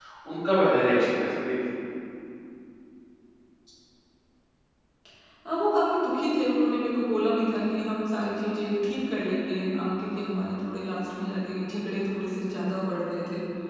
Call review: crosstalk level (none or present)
none